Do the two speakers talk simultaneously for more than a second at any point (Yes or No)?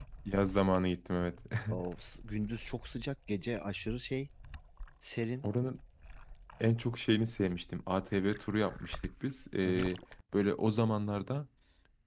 No